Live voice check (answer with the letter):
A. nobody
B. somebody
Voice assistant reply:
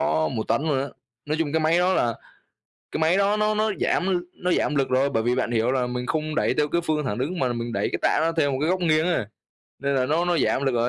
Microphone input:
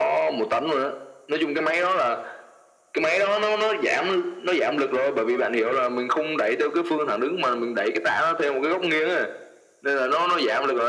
A